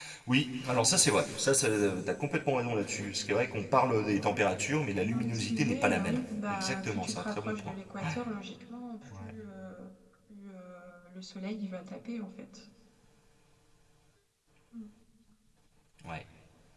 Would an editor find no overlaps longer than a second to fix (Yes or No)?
No